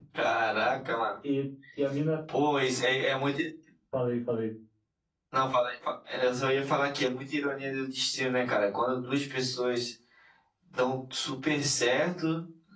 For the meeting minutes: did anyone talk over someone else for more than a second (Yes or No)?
No